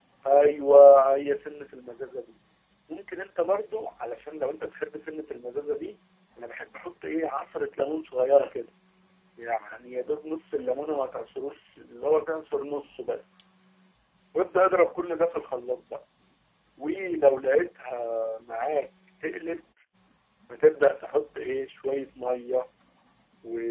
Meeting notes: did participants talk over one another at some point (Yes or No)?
No